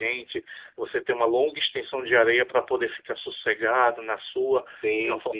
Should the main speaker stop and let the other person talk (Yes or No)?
No